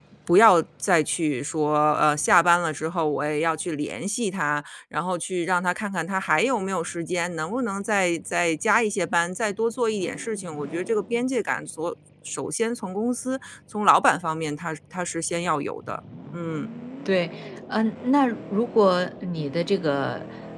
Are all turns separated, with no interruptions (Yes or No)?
Yes